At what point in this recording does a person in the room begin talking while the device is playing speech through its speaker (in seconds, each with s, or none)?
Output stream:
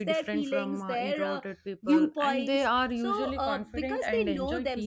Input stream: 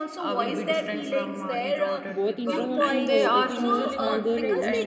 2.1 s